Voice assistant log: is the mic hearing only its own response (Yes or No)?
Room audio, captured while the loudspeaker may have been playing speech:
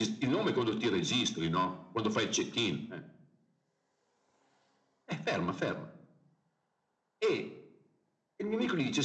Yes